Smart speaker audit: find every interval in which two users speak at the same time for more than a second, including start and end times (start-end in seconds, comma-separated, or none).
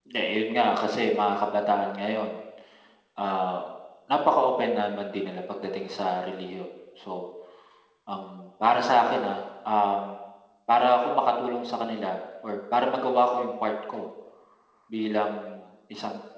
none